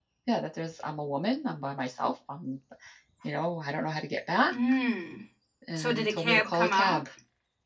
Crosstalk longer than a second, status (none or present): present